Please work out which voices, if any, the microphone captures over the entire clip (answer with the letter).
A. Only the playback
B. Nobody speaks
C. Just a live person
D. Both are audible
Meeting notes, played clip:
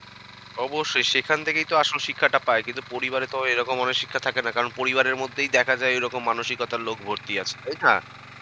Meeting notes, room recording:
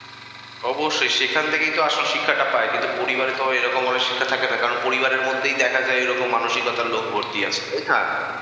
A